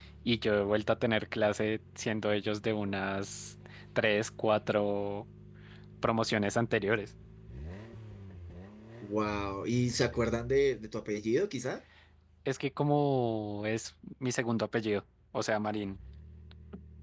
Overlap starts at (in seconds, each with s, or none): none